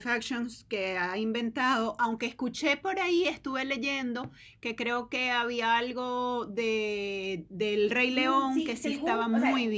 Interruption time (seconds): 8.1 s

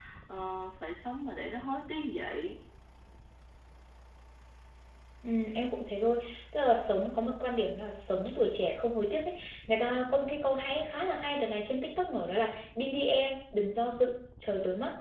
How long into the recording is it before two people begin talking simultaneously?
none

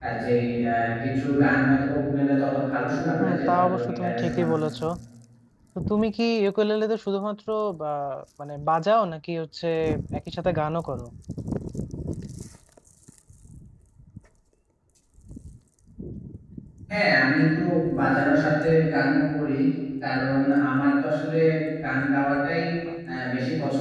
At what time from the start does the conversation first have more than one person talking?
3.2 s

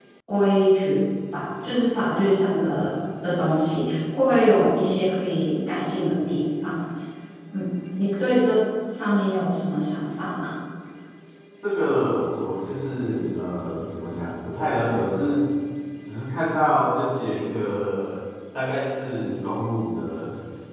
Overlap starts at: none

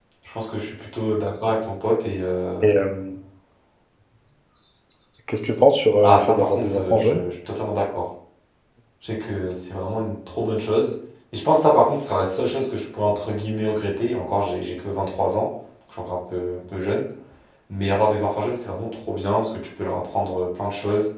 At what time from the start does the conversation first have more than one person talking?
6.0 s

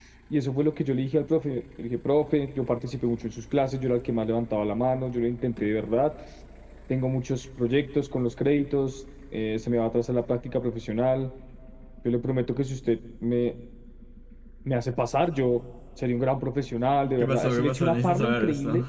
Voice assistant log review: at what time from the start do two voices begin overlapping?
17.0 s

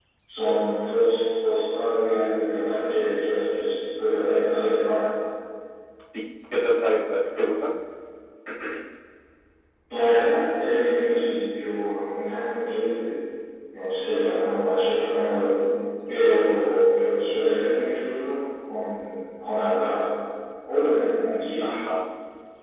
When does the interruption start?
none

